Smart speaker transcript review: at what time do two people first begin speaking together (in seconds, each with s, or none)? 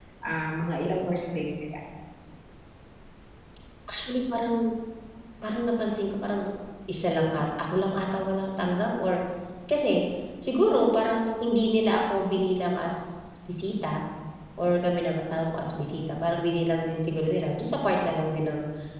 none